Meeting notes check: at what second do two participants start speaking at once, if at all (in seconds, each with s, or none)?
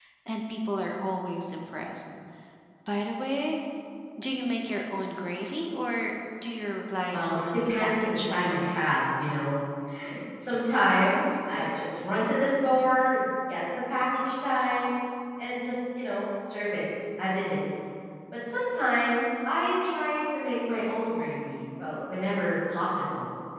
7.1 s